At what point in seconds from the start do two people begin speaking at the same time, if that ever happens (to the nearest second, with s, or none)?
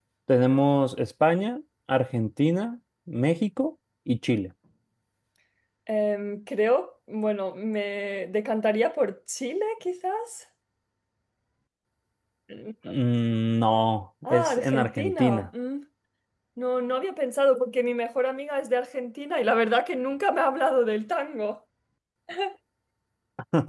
14 s